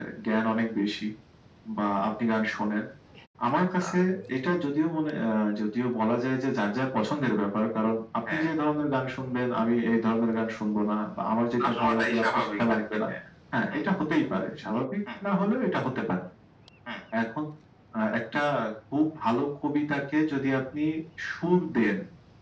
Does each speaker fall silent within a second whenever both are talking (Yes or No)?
No